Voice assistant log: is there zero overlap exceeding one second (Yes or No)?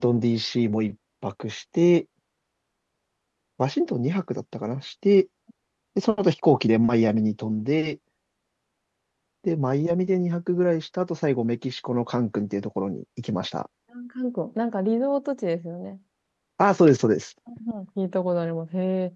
Yes